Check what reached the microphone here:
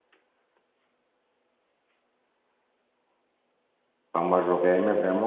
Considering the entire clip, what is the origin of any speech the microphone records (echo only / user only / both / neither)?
user only